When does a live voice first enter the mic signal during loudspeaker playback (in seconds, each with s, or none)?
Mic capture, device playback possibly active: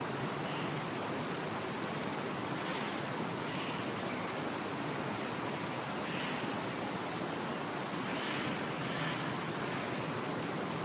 none